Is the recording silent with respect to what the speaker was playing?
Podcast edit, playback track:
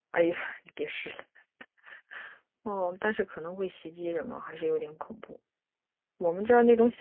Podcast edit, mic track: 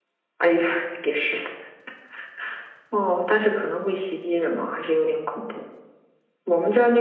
No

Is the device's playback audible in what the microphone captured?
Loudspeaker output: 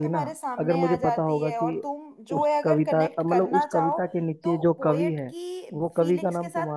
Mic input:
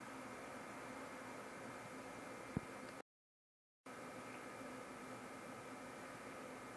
No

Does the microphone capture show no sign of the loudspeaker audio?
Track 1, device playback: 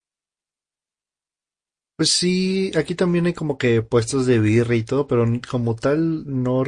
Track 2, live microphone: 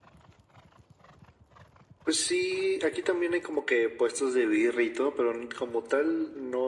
No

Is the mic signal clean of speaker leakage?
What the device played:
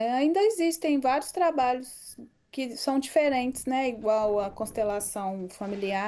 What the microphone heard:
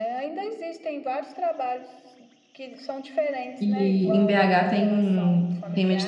No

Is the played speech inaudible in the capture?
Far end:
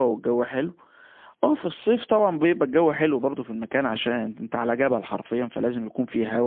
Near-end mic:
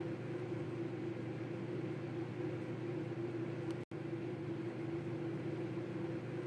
Yes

